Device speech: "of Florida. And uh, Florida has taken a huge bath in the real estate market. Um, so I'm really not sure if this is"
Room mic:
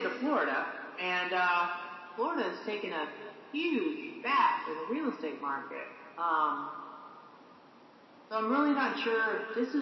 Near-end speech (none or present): none